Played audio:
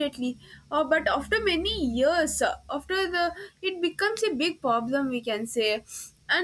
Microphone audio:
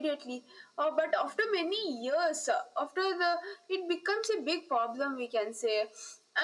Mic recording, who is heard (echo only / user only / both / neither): echo only